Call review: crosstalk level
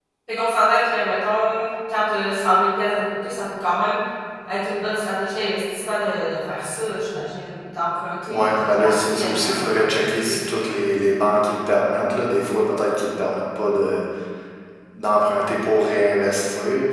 present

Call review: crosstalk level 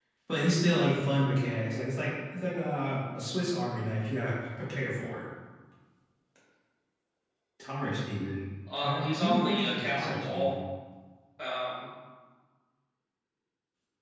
present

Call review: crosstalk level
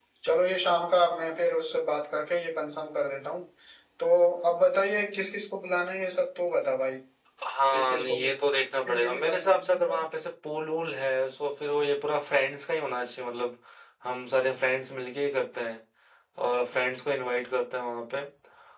present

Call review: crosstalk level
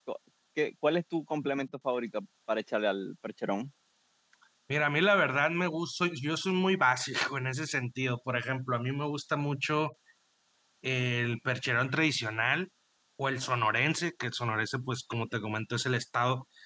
none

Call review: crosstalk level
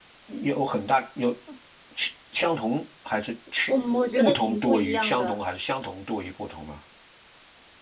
present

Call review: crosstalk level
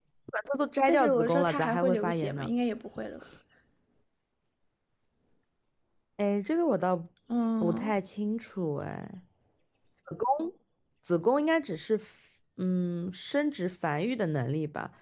present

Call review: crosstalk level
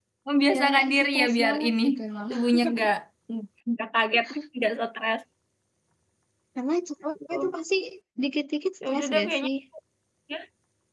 present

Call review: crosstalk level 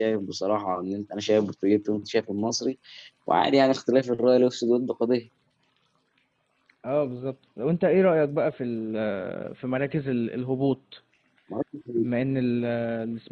none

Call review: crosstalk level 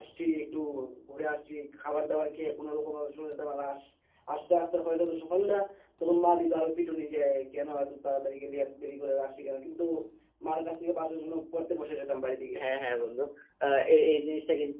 none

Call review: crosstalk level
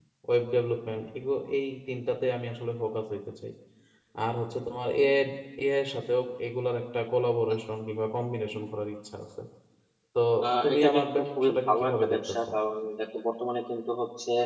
present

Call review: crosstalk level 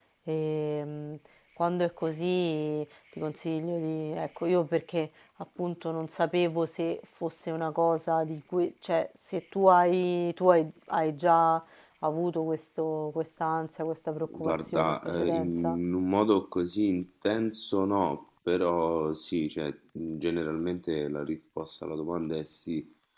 present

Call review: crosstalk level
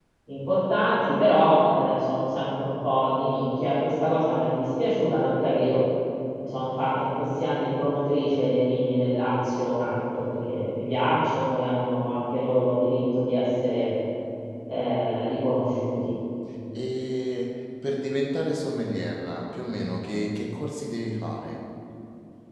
none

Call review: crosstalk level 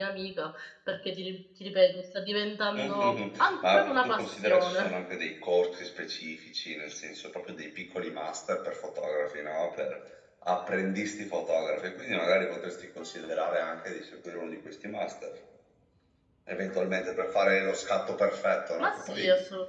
present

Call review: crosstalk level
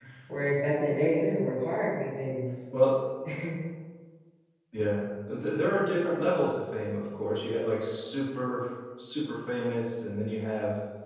none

